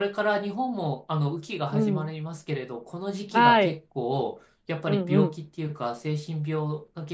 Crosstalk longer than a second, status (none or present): none